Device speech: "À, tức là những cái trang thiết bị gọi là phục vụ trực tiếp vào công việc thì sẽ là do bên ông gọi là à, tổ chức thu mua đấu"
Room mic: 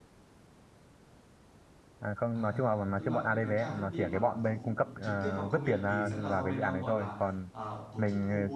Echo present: Yes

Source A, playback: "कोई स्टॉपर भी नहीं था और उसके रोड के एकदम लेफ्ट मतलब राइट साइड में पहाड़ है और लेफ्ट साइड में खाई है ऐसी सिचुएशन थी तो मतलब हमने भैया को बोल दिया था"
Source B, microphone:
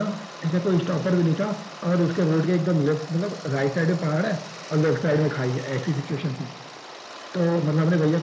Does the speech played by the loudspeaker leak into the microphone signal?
Yes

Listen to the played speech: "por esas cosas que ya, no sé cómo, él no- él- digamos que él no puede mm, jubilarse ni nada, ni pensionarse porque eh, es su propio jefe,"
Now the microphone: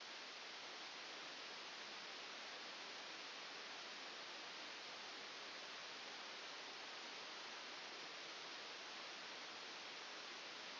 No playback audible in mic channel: Yes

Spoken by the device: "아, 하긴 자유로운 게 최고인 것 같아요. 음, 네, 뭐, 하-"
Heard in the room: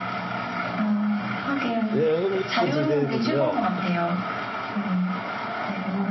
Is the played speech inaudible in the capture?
No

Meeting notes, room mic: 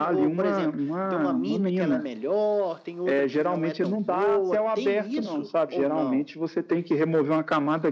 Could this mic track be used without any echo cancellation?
No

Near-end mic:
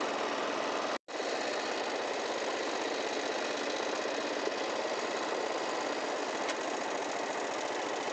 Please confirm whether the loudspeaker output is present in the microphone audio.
No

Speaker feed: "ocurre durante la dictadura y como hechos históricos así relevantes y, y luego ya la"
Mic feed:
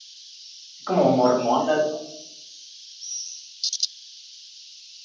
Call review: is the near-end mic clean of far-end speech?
Yes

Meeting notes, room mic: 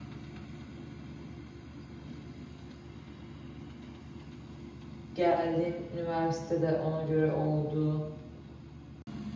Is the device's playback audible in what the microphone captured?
No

